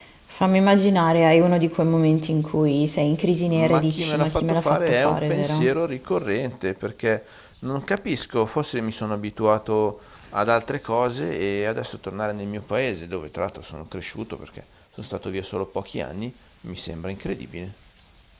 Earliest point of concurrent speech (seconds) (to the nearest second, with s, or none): 3 s